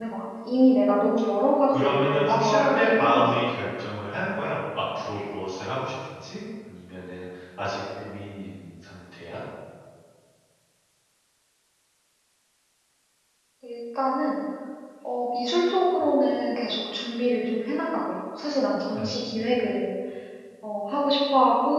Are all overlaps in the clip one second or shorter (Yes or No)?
No